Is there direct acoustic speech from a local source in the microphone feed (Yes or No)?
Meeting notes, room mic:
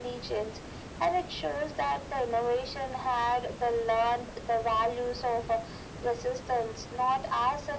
No